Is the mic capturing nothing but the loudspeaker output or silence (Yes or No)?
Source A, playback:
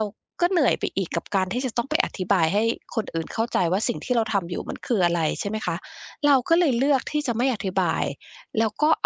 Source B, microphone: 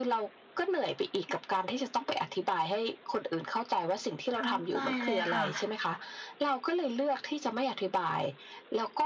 No